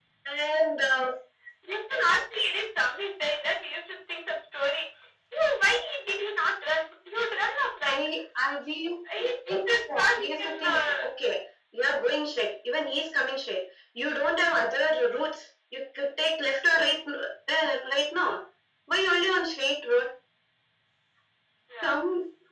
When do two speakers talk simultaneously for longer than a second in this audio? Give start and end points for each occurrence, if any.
9.2-10.8

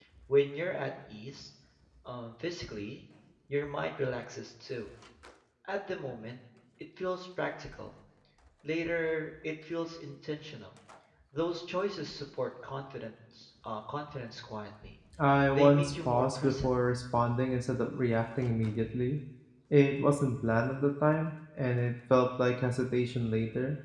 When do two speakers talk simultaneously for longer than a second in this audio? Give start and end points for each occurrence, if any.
15.5-16.7

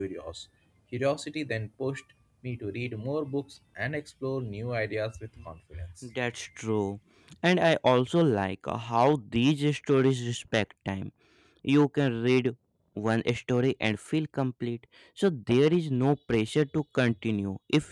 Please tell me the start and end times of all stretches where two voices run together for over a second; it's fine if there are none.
none

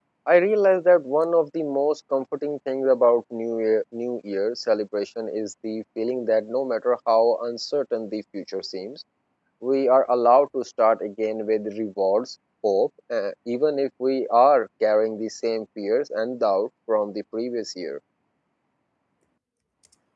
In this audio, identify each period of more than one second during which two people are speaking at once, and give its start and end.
none

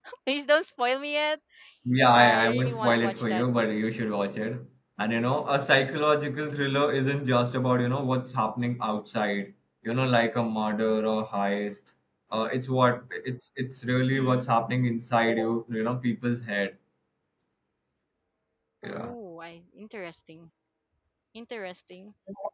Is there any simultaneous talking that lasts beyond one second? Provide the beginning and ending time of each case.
2.1-3.7

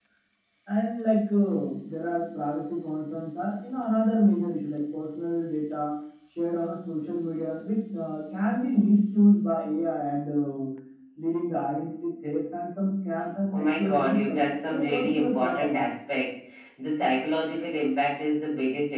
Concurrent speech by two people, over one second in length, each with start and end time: 13.5-15.9

